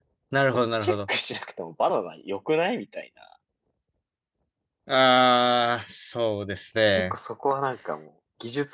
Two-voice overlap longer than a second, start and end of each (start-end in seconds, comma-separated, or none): none